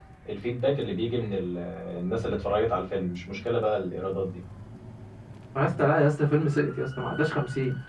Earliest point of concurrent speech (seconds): none

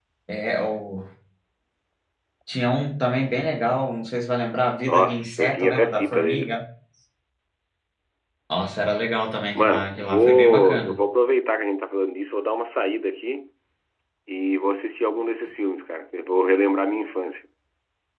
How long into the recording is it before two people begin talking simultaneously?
4.8 s

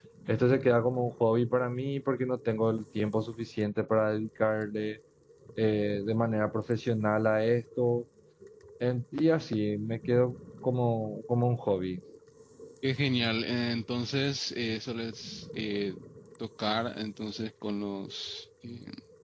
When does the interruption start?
none

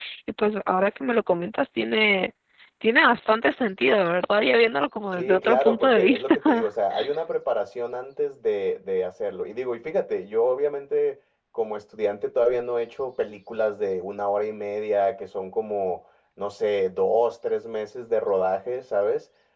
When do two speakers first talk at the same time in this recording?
5.2 s

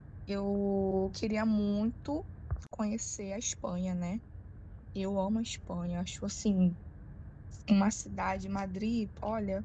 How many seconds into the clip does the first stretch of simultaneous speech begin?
none

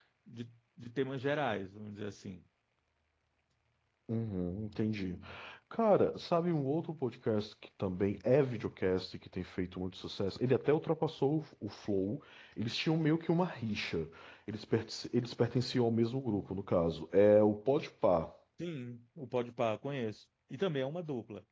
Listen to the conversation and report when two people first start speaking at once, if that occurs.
none

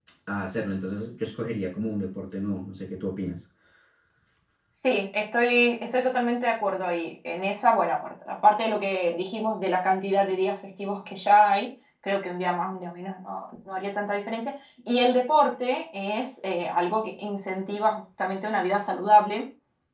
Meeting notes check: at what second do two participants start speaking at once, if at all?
none

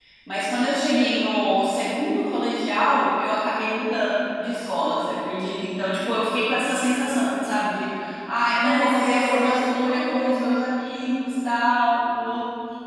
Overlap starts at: 8.5 s

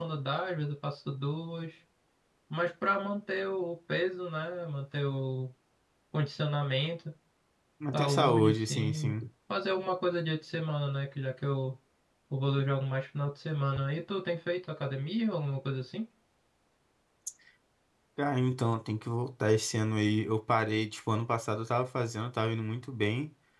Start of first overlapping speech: 7.9 s

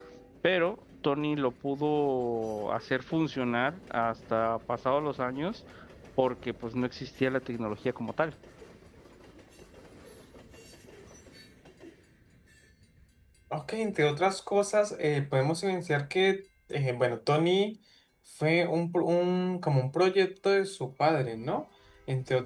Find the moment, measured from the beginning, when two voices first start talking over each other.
none

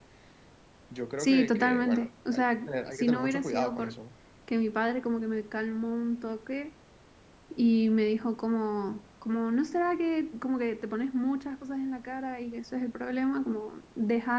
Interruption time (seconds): 1.2 s

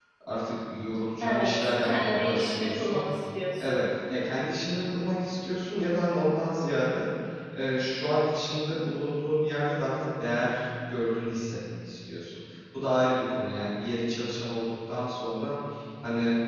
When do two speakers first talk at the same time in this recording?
1.2 s

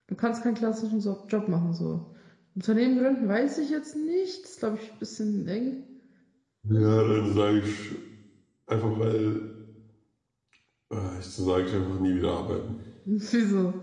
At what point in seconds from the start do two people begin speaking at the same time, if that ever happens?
none

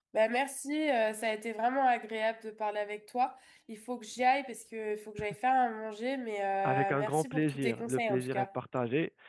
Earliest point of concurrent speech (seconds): 6.6 s

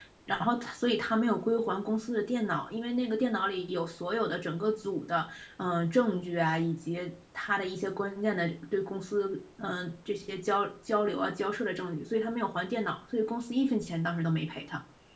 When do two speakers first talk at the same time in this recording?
none

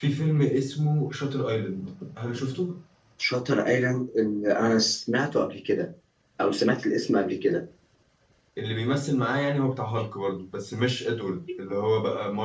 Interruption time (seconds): none

